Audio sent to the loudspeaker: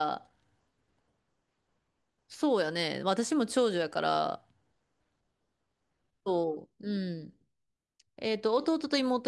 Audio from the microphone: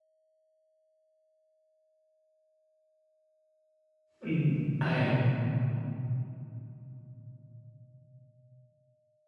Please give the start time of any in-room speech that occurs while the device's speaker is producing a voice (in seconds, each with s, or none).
4.2 s